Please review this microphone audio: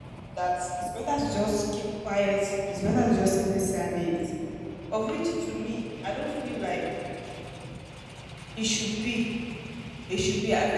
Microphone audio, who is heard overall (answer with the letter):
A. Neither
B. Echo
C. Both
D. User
D